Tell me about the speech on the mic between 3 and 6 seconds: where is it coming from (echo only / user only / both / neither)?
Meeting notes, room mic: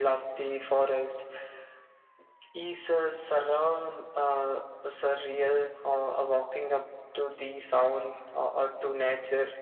echo only